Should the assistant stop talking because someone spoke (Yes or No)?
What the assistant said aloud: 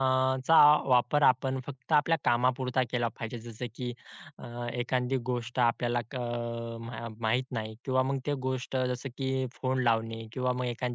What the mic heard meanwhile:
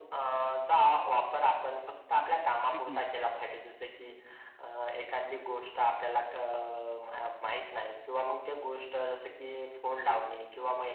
Yes